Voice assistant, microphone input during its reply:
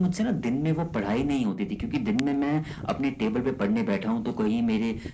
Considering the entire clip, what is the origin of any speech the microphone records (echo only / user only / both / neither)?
echo only